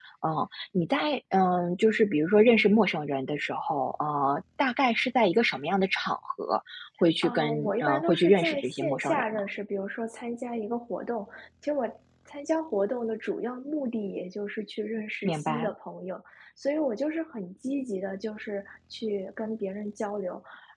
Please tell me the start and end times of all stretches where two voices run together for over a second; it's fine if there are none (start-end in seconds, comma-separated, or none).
7.2-9.4